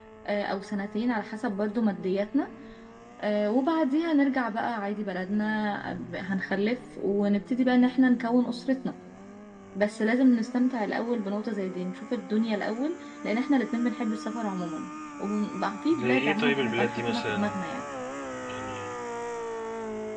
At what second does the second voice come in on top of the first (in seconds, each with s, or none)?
15.9 s